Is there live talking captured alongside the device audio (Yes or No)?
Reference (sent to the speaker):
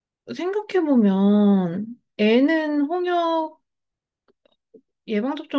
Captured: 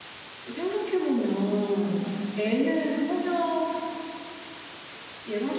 No